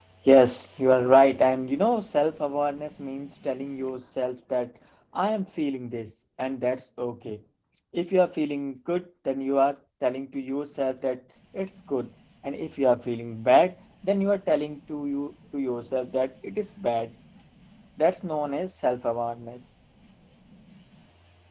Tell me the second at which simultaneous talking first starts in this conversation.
none

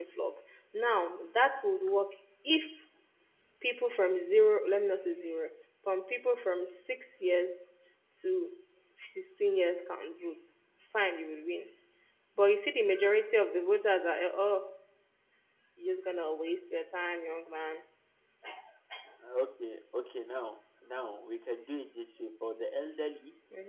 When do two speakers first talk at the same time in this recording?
none

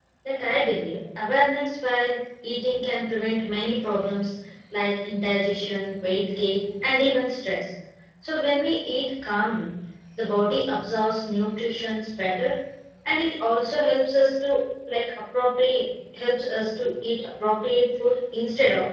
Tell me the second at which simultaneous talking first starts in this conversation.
none

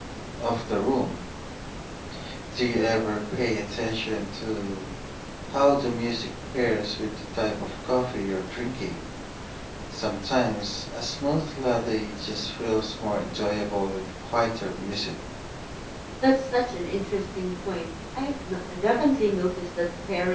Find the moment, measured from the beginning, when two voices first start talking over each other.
none

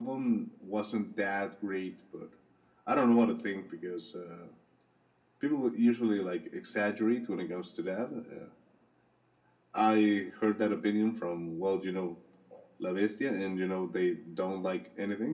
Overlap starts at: none

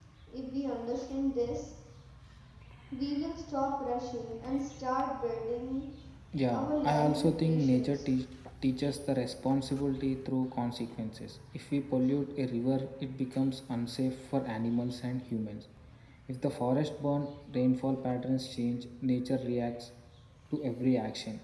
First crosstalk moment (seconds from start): 6.5 s

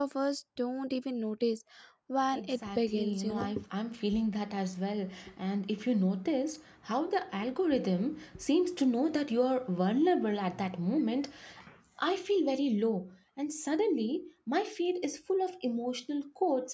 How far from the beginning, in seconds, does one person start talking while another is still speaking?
2.3 s

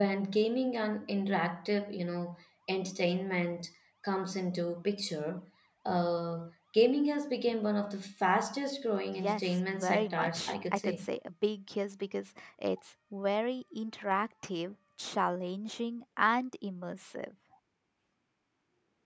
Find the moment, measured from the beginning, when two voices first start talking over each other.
9.1 s

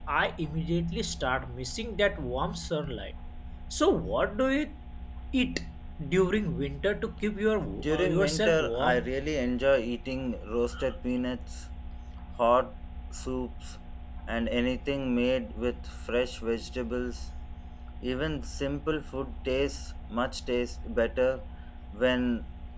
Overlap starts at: 7.8 s

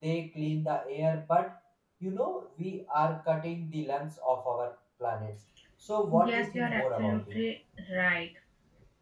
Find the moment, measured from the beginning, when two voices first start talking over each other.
6.1 s

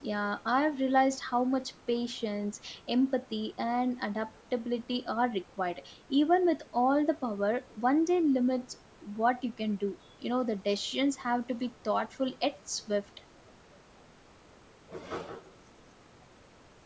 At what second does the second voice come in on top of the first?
none

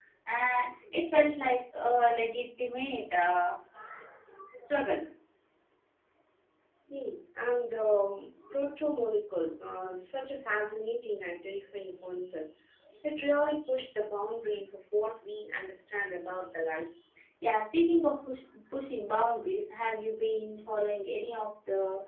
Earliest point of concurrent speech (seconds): none

